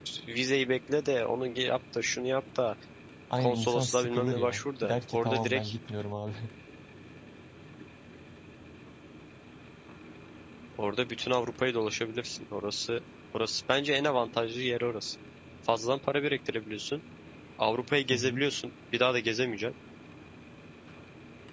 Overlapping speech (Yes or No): Yes